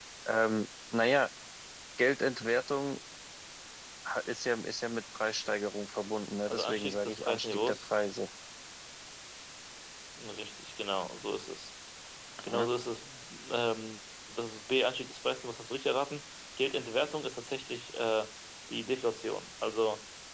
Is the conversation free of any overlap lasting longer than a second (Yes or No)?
No